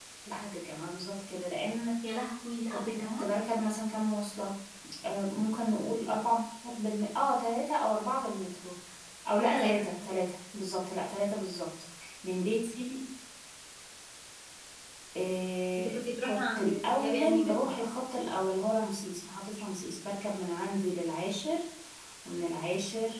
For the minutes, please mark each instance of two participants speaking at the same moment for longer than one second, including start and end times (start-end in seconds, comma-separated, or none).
15.8-17.8